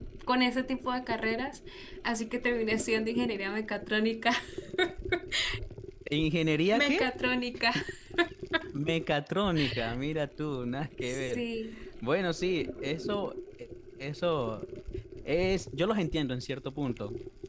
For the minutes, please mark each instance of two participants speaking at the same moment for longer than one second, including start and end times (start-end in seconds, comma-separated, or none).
none